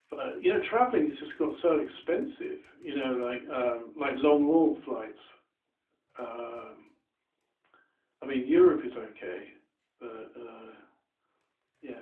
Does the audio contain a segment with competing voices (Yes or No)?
No